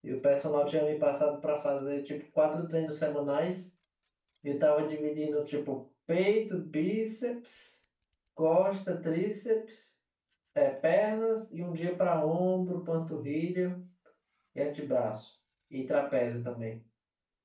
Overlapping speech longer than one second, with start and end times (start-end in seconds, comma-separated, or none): none